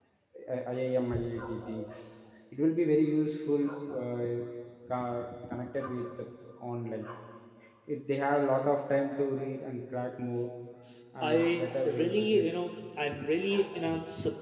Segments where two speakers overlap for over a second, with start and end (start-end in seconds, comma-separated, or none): 11.2-12.5